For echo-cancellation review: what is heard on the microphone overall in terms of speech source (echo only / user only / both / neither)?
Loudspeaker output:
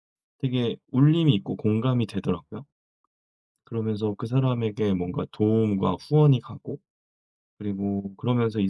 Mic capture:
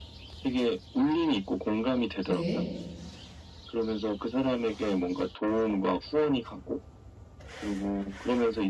both